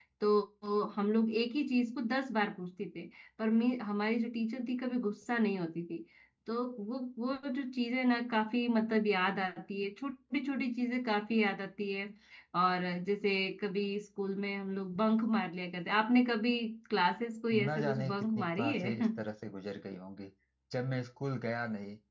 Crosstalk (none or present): present